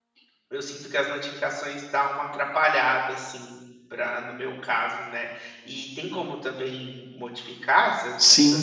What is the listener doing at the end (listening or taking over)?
taking over